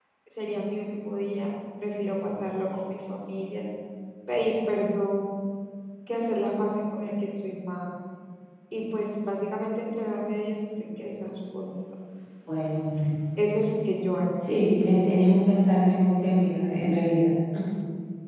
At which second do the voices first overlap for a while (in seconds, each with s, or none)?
none